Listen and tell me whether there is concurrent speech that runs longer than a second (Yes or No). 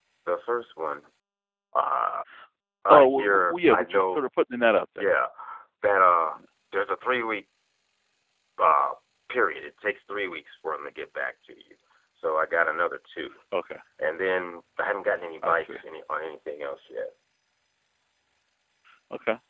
Yes